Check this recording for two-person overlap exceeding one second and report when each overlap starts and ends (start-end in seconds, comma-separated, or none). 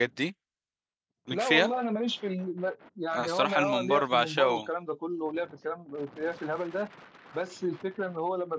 3.1-4.7